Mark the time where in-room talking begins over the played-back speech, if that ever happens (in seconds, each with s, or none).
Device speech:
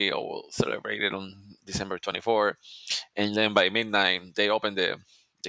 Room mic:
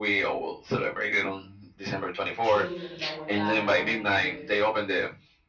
2.4 s